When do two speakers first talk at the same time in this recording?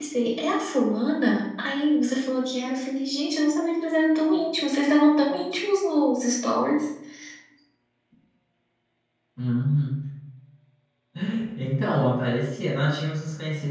none

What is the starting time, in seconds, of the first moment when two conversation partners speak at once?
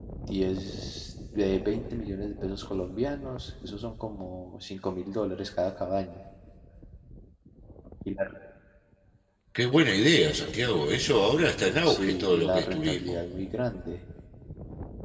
11.8 s

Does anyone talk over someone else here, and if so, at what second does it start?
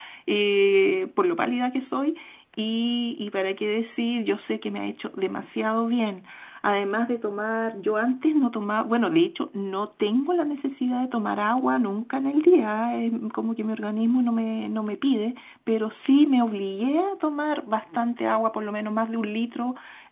none

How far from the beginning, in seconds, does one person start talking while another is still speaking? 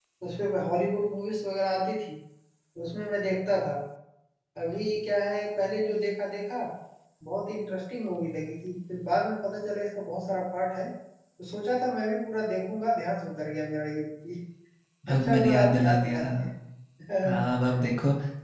15.1 s

